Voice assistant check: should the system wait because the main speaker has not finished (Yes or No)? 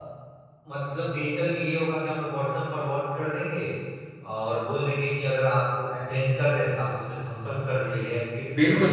No